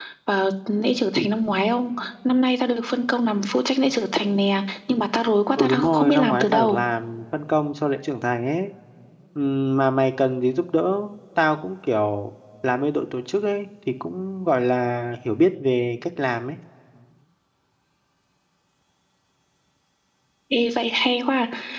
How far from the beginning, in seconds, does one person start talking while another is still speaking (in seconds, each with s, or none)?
5.6 s